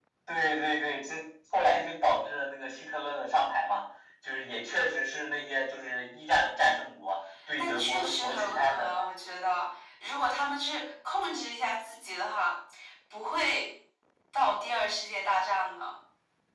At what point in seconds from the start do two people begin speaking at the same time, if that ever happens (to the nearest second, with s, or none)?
8 s